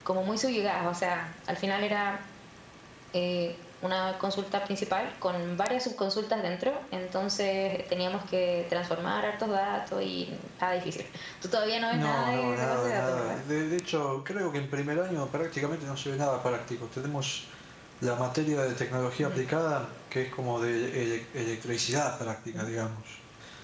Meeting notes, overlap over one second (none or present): present